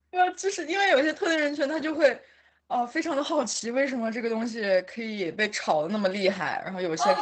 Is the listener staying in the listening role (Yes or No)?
No